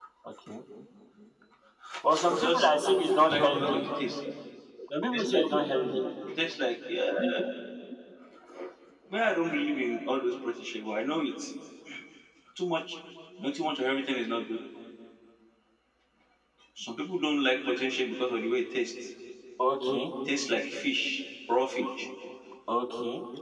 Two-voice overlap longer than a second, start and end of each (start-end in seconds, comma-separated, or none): 2.1-3.8